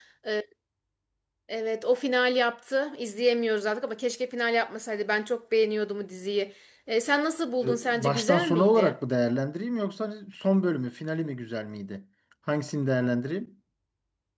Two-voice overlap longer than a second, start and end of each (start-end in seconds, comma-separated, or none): 7.6-8.9